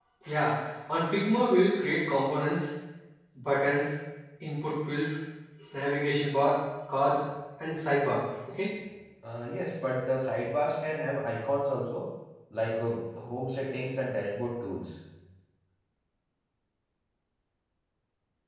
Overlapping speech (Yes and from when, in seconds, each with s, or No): No